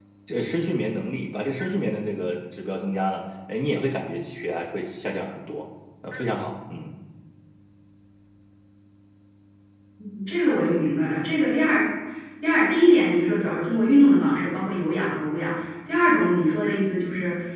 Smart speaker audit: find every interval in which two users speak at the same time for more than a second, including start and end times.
none

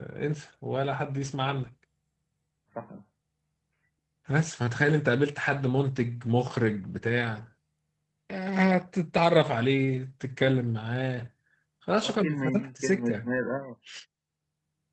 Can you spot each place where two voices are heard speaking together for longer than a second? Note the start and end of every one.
12.0-13.3

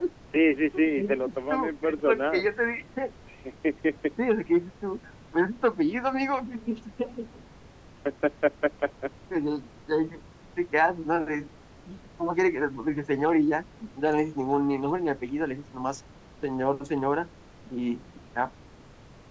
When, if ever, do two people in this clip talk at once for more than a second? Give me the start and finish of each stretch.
1.0-2.4

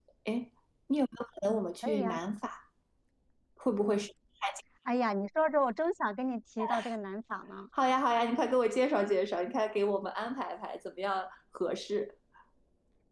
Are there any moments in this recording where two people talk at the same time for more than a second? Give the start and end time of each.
none

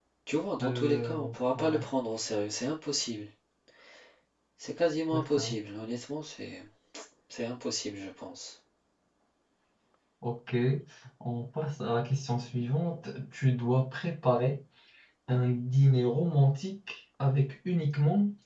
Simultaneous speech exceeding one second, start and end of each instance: 0.6-1.8

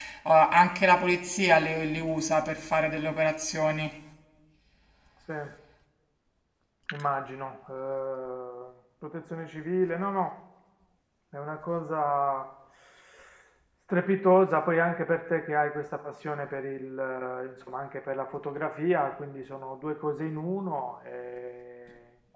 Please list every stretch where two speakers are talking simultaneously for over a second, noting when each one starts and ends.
none

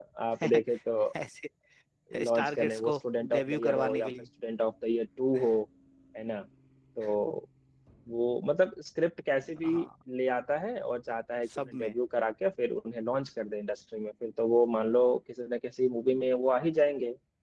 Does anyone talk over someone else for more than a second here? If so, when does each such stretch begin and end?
2.2-4.1

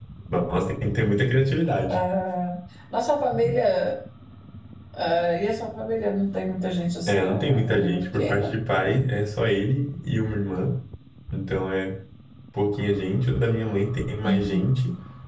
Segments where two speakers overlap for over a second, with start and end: 7.1-8.5

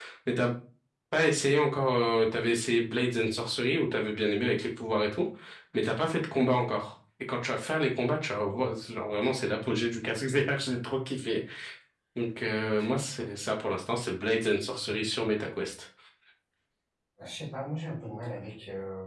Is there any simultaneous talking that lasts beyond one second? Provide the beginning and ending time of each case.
none

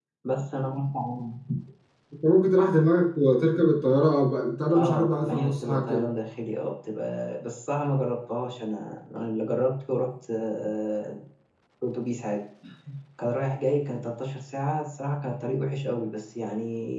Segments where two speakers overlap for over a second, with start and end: 4.7-6.0

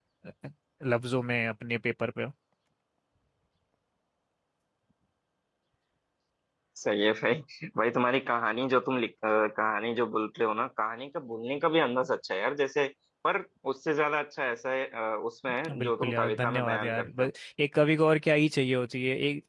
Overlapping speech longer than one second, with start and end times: 15.8-17.3

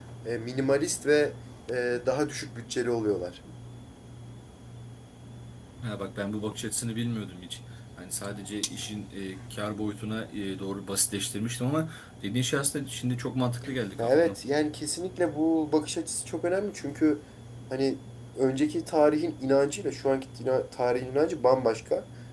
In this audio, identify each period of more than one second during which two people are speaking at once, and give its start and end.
none

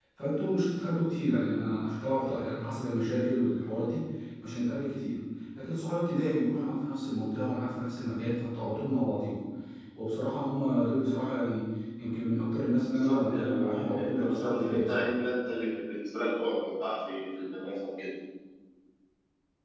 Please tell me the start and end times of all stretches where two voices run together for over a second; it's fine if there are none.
12.9-15.1

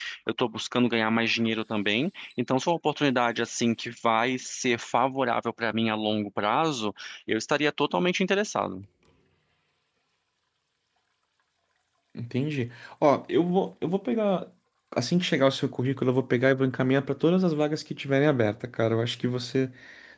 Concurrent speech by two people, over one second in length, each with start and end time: none

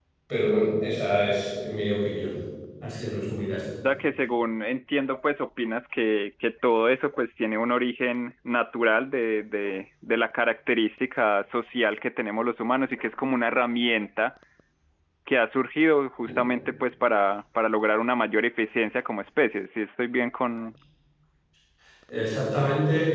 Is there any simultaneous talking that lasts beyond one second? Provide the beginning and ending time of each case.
none

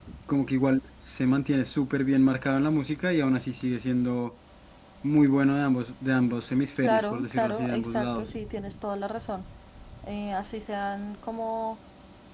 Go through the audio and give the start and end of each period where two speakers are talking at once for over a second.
6.8-8.3

